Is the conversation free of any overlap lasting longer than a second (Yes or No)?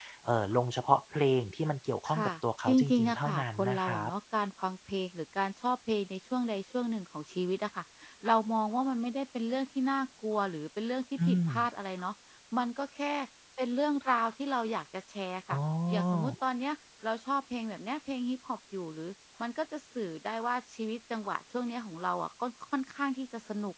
No